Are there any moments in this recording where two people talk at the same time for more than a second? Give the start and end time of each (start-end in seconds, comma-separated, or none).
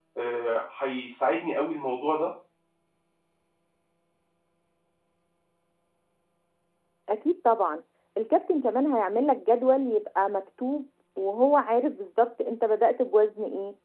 none